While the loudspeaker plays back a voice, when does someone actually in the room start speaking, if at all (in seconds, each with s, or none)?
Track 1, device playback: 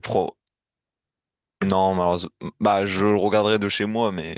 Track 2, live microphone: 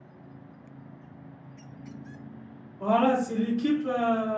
2.8 s